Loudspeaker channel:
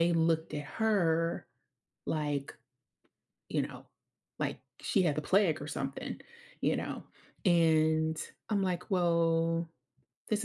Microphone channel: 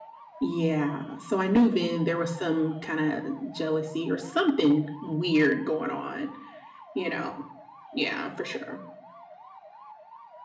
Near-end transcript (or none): Yeah, so I knew then there was some kinda jealousy or something weird going on, you know? Yeah, for sure.